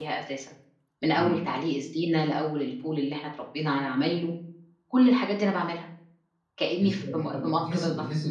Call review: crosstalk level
present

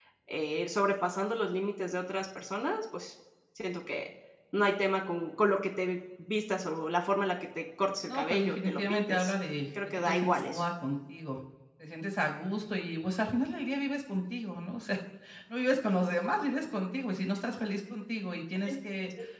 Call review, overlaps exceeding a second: present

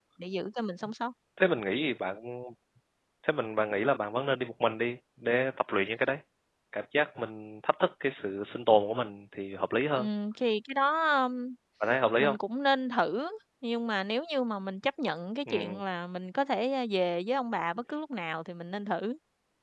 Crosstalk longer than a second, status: none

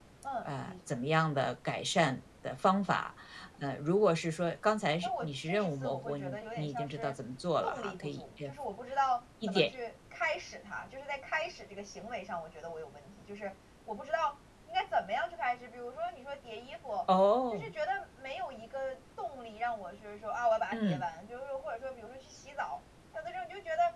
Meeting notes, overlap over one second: present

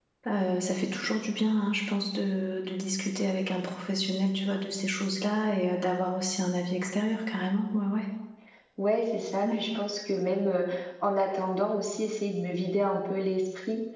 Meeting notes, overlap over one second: none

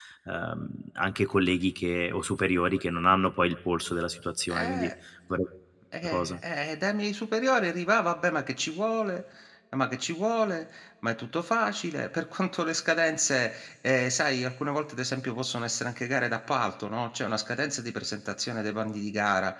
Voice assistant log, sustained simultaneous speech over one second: none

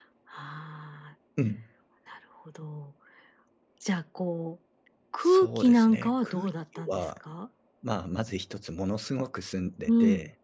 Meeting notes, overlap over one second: present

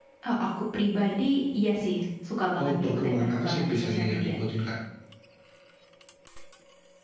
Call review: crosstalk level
present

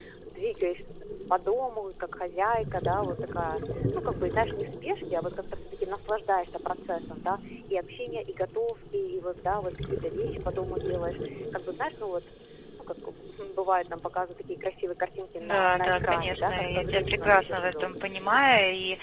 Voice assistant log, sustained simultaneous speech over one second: present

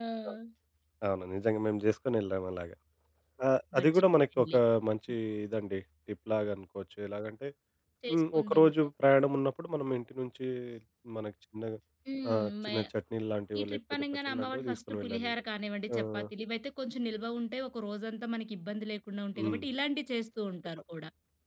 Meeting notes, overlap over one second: present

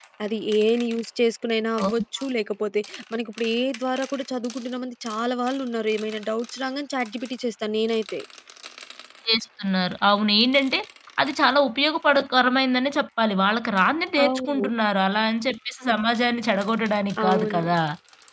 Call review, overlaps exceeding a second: none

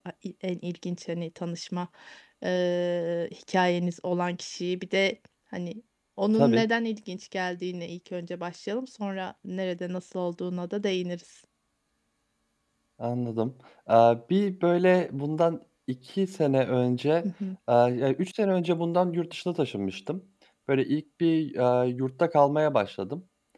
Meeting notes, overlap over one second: none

